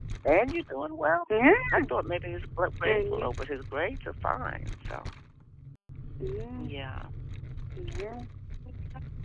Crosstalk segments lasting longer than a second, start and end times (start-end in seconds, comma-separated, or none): none